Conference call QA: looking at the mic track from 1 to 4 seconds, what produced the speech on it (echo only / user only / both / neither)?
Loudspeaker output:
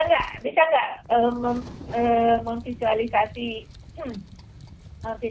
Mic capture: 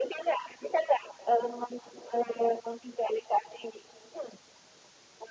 echo only